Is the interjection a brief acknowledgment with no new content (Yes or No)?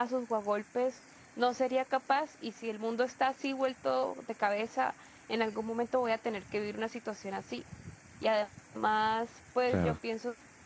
Yes